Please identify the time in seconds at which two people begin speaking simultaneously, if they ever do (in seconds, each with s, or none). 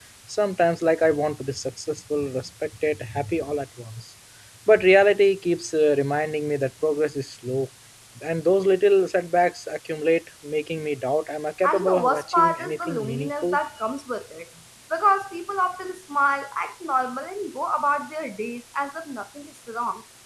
11.6 s